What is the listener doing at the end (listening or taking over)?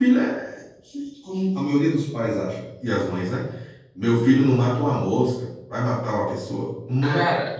taking over